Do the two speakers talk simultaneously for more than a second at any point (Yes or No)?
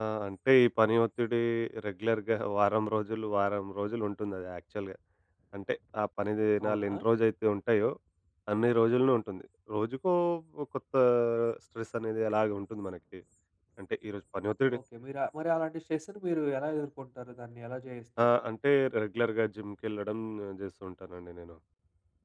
No